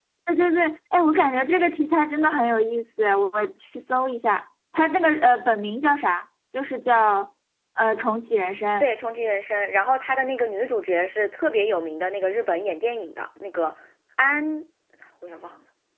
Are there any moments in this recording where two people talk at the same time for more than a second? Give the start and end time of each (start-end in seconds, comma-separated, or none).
none